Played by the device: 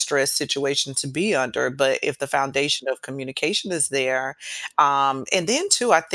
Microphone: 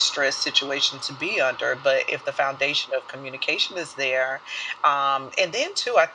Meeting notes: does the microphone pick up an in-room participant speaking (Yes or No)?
No